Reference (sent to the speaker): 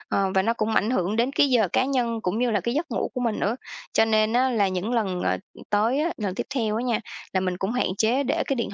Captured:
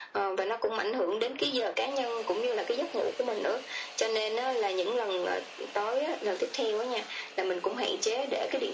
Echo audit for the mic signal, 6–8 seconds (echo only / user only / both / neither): echo only